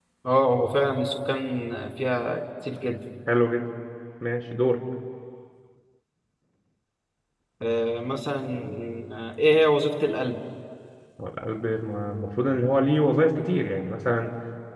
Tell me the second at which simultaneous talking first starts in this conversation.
none

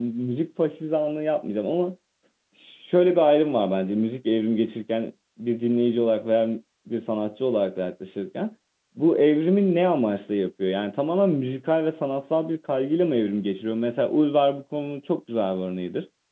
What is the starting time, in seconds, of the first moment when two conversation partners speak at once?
none

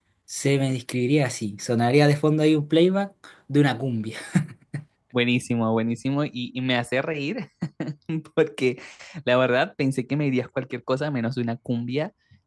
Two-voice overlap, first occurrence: none

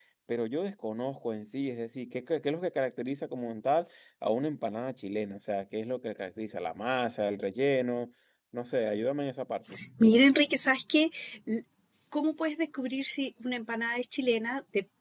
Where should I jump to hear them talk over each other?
none

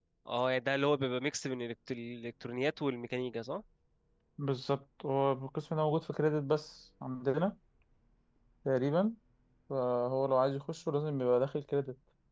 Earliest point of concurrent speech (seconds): none

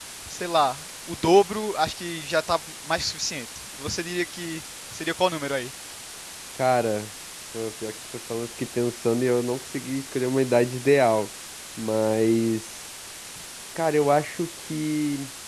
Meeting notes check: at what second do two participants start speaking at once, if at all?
none

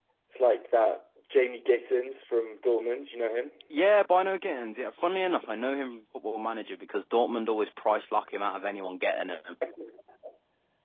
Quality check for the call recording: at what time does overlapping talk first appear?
none

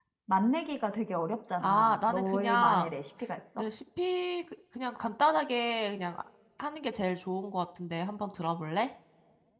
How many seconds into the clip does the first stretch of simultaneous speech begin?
1.6 s

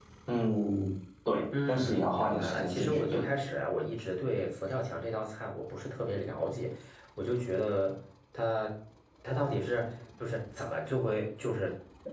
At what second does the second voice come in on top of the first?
1.5 s

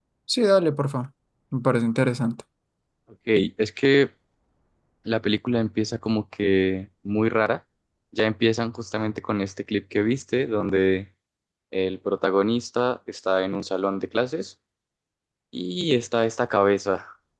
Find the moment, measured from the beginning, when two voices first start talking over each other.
none

